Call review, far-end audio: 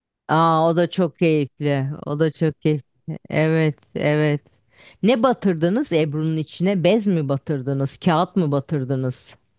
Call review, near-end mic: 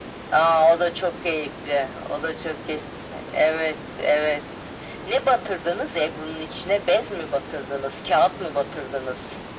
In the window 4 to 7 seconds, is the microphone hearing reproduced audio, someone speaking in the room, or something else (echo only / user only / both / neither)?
echo only